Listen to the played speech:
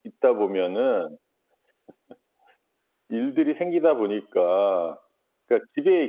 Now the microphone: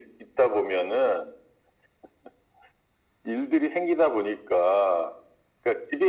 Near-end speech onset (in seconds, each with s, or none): none